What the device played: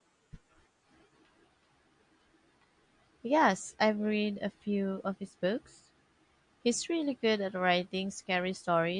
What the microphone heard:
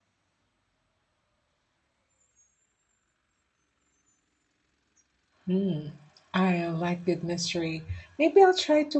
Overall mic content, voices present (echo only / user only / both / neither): user only